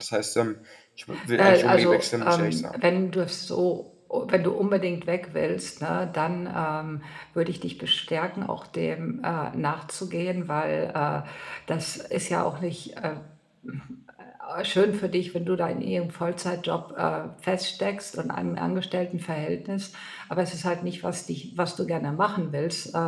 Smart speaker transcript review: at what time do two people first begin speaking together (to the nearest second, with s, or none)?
1 s